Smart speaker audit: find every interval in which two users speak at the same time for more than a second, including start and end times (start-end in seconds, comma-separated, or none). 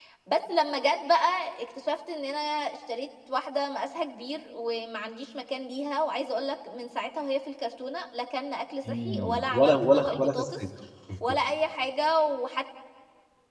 9.1-10.6